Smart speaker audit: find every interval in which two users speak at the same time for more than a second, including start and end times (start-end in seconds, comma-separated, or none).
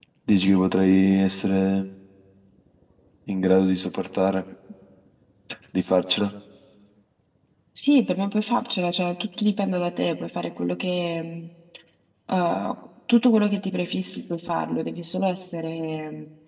none